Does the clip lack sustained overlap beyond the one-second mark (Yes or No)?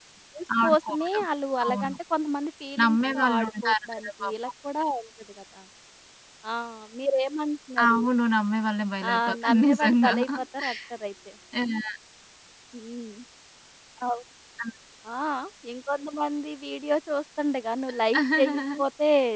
No